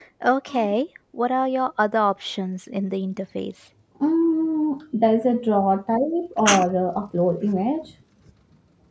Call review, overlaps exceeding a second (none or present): none